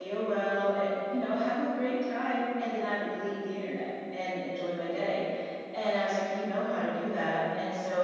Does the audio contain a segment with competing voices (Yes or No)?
No